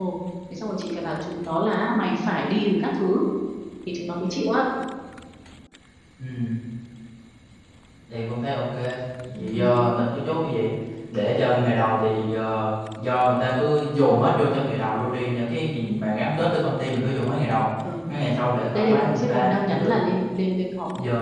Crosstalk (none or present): present